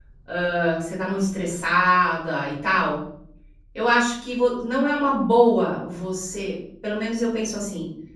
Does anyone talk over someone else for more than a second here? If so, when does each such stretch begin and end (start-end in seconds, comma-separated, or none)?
none